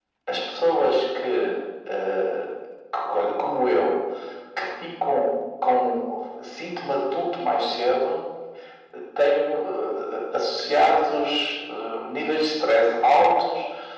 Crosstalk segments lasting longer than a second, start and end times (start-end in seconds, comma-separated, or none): none